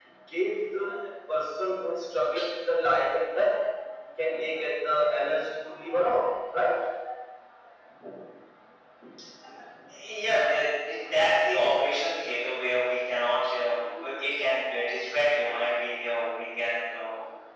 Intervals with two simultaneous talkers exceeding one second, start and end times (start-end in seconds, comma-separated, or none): none